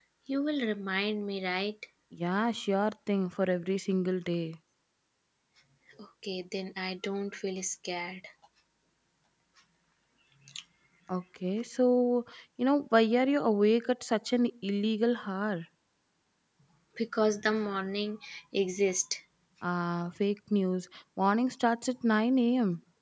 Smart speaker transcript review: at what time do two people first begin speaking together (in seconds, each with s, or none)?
none